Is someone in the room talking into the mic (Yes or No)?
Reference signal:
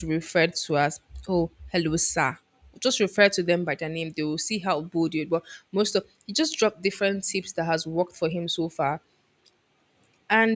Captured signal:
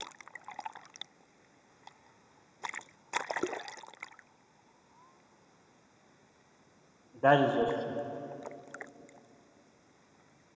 Yes